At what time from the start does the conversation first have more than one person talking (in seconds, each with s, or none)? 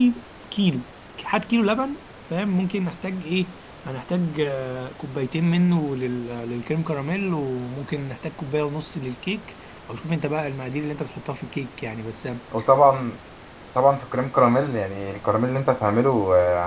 none